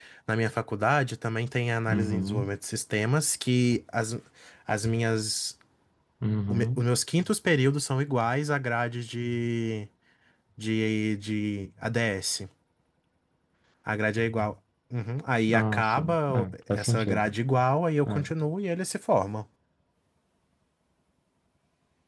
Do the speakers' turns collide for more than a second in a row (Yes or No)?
Yes